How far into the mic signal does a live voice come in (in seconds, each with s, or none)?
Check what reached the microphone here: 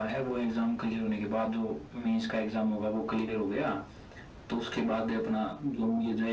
none